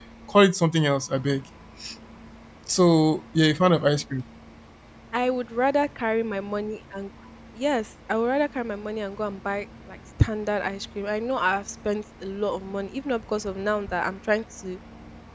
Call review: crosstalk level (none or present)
none